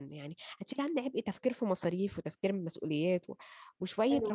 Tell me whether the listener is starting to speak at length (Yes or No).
Yes